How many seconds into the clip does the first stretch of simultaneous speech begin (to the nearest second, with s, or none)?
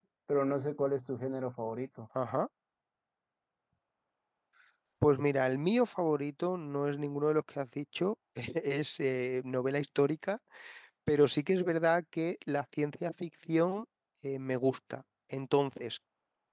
none